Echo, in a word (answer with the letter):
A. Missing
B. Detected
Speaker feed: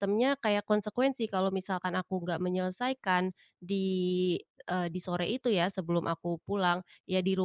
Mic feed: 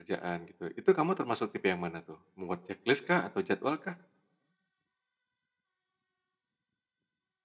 A